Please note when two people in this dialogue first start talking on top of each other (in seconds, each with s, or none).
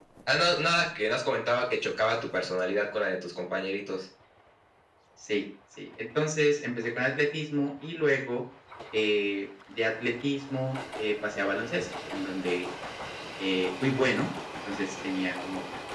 none